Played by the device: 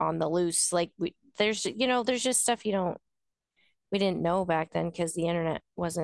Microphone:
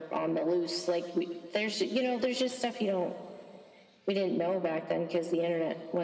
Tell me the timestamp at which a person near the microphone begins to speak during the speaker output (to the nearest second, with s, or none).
none